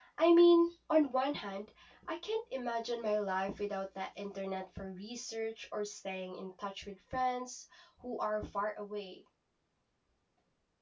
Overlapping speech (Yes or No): No